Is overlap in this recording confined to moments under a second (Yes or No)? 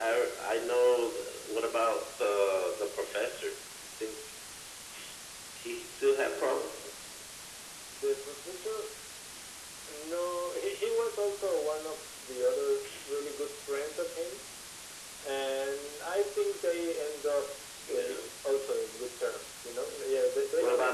Yes